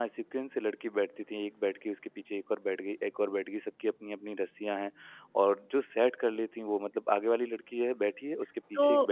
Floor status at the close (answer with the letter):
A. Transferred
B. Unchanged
A